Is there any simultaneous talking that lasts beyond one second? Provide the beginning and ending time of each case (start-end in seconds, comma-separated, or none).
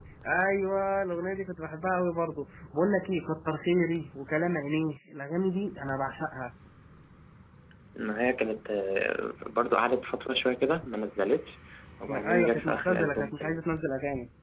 12.1-13.6